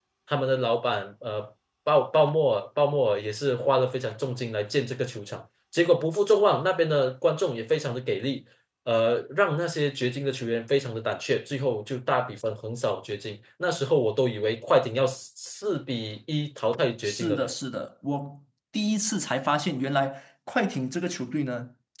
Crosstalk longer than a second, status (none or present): none